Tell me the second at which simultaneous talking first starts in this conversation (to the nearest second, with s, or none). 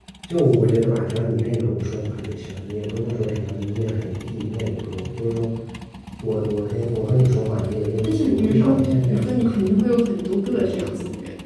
8 s